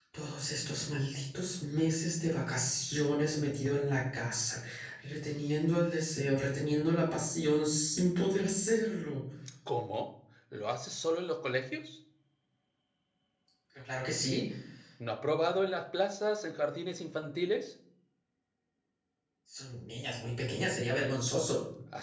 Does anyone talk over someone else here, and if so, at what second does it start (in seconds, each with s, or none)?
none